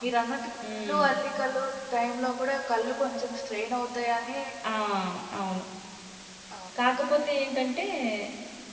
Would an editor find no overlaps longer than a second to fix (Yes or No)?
Yes